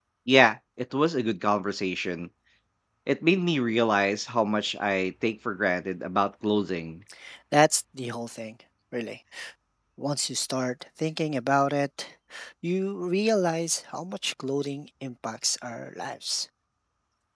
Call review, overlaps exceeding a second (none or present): none